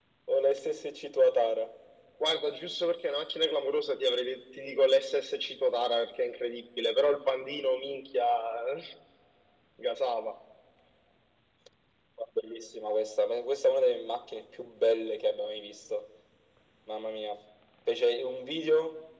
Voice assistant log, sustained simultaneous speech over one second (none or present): none